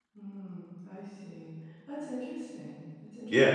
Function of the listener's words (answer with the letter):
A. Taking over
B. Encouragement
A